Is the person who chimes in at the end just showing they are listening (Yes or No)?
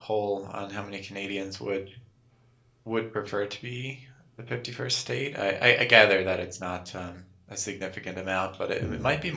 Yes